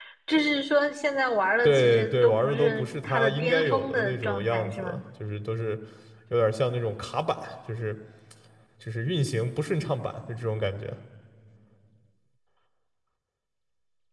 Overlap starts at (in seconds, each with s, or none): 1.6 s